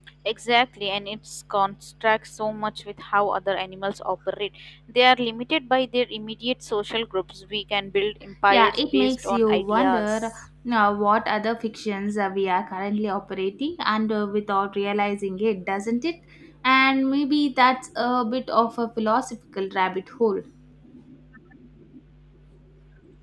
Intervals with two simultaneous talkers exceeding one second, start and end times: 8.5-10.3

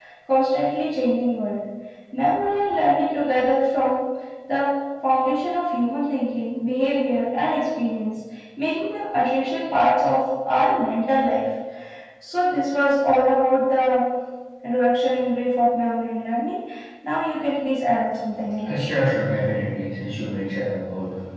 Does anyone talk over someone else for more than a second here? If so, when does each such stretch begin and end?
none

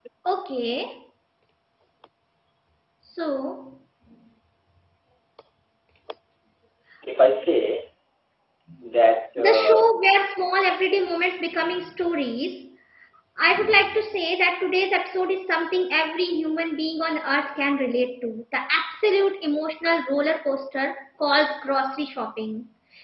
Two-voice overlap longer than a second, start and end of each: none

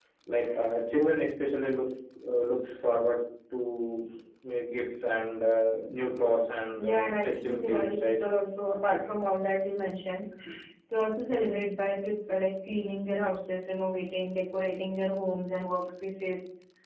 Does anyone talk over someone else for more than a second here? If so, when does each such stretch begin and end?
6.8-8.2

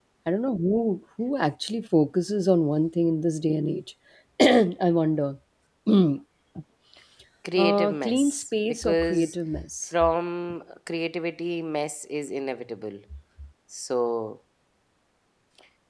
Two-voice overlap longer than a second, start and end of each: 7.6-9.3

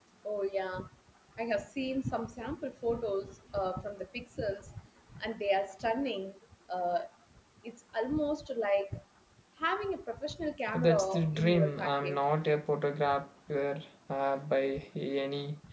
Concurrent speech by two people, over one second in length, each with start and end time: 10.7-12.2

